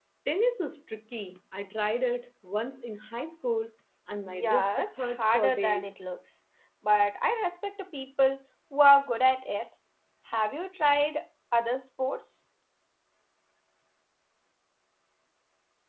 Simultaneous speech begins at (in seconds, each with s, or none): 4.3 s